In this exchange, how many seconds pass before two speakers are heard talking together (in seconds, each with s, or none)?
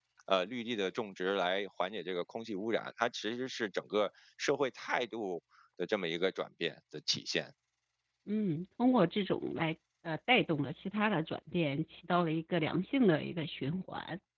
none